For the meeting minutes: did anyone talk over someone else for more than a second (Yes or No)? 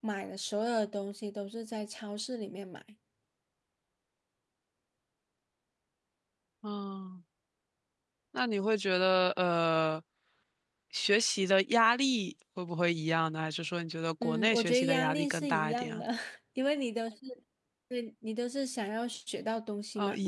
Yes